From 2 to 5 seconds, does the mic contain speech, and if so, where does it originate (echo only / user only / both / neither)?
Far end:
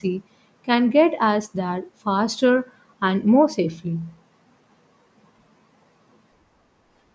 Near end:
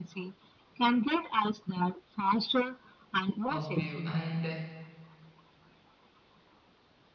both